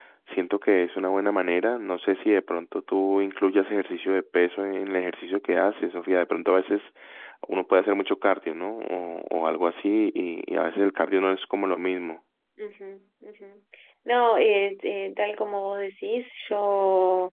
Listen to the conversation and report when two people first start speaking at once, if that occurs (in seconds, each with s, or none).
none